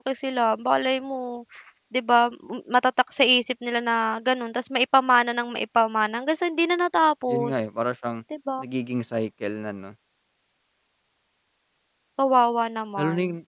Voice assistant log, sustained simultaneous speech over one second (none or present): none